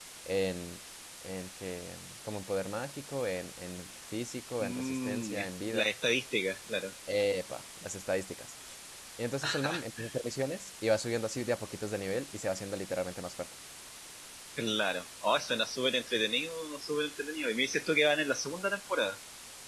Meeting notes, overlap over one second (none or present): present